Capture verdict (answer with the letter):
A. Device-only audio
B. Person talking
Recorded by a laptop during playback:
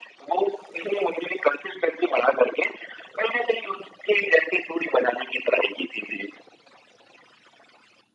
A